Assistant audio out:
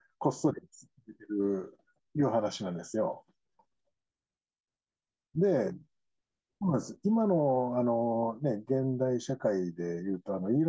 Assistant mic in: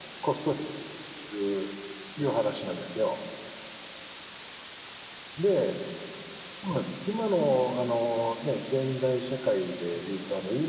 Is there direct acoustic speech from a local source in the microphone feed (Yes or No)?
No